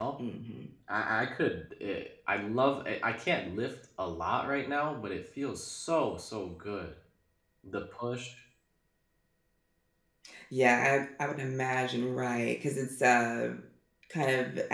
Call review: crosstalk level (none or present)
none